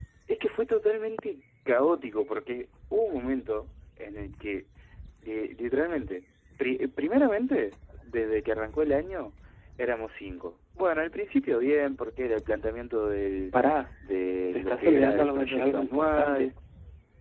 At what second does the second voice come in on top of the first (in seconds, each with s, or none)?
14.5 s